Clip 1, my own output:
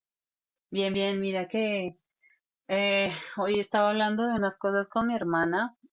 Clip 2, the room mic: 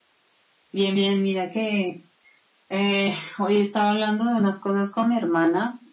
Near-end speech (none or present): none